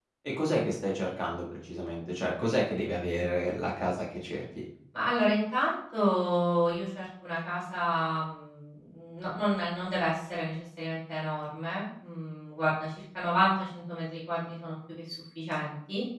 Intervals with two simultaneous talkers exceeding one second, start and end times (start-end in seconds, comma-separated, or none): none